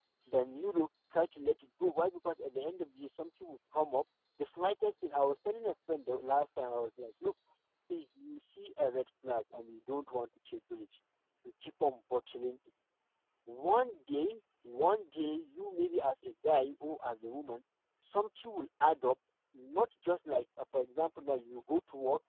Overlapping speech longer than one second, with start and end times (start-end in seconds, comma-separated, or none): none